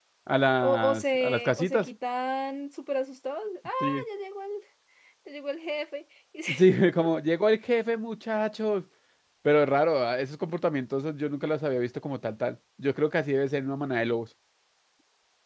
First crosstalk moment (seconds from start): 0.6 s

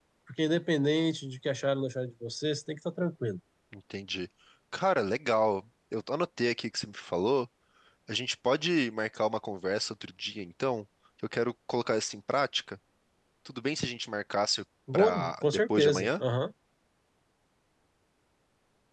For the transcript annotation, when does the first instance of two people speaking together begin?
14.9 s

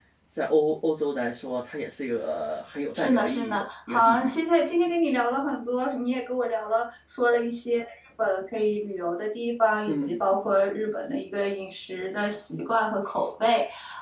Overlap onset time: 2.9 s

